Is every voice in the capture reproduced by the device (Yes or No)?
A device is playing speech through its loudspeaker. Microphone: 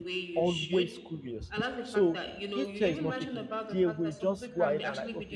No